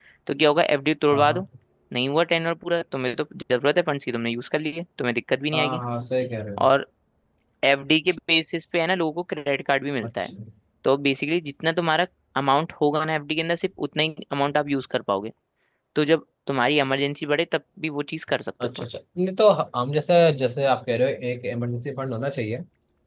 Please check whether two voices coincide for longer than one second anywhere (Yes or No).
No